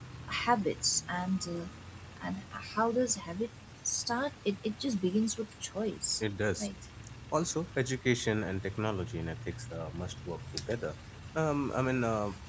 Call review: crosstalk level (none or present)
none